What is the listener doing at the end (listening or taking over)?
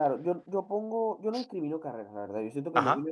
listening